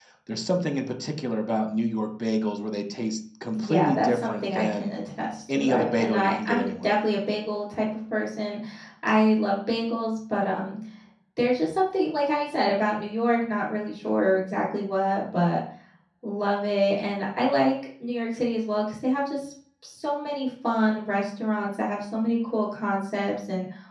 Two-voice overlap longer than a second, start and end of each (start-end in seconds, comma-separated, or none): 3.5-4.9, 5.5-6.9